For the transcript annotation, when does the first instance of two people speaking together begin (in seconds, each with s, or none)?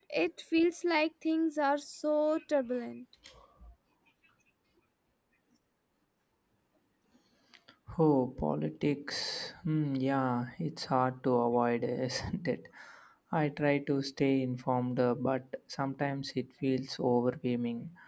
none